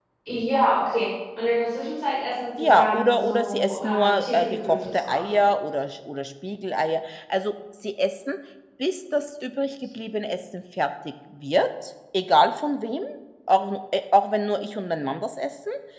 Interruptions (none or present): present